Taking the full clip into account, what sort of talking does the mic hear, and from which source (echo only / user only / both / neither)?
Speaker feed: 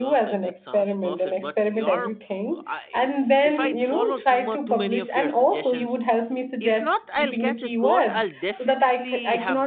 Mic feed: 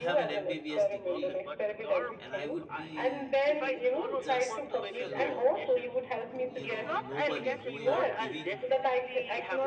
both